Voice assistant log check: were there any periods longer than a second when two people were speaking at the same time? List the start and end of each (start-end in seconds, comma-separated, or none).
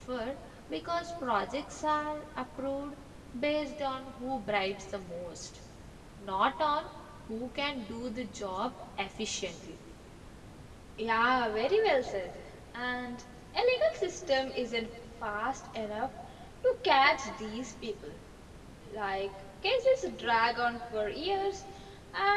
none